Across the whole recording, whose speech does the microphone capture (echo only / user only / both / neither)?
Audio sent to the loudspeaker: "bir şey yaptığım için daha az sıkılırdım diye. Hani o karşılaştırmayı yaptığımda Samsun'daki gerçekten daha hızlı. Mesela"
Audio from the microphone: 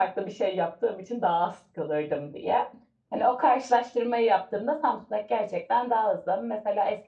echo only